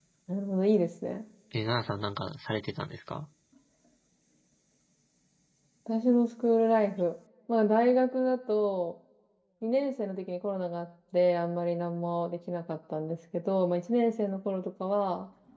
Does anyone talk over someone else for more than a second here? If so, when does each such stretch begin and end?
none

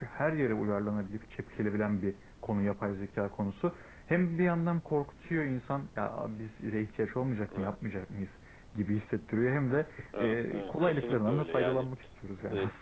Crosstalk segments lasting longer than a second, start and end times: 10.2-11.8

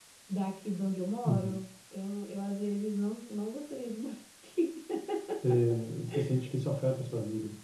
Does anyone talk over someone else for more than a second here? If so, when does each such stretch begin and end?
none

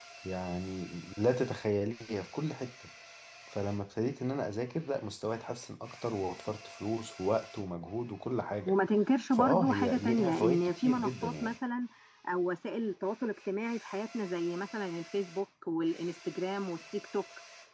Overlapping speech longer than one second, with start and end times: 9.3-11.6

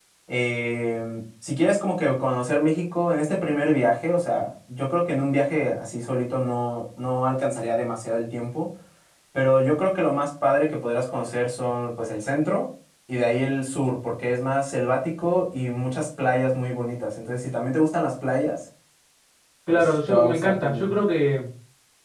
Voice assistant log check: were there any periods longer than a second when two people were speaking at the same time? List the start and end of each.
19.7-20.9

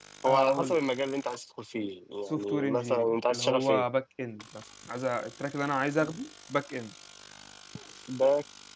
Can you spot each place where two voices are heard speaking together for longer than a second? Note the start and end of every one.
2.3-3.8

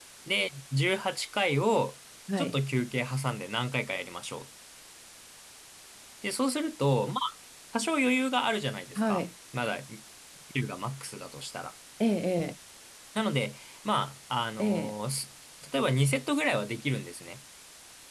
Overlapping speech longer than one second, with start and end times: none

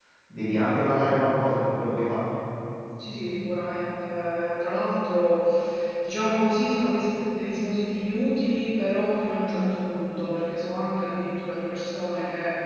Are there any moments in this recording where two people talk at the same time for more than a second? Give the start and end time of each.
none

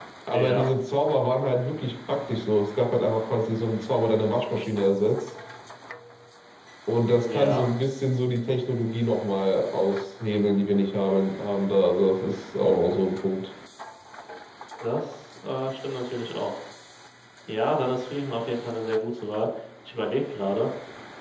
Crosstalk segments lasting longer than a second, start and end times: none

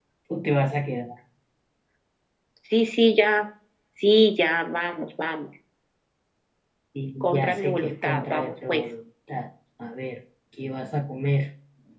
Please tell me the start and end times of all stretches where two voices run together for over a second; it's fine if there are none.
7.2-8.8

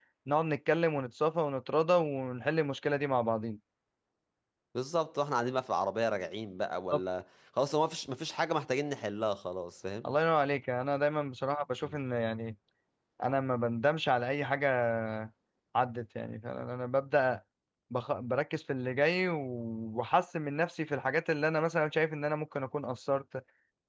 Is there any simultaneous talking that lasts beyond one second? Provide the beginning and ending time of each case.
none

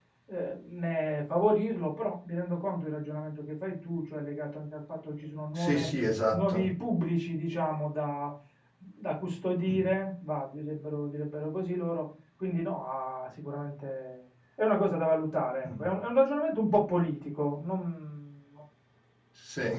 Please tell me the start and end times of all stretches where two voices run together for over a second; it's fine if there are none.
none

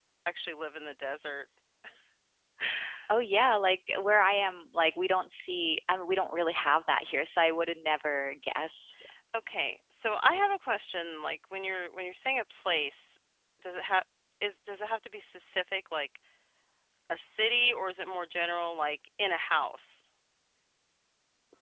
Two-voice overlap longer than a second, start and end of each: none

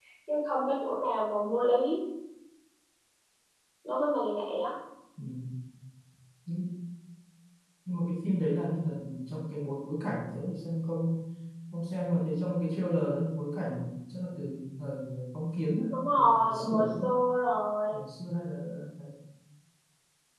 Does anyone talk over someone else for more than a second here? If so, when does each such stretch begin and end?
15.9-17.1

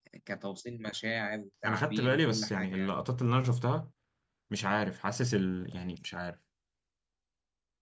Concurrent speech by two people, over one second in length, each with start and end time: 1.6-2.9

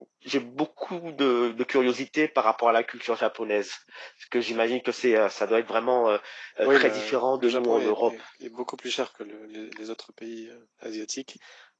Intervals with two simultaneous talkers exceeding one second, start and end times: 6.6-8.1

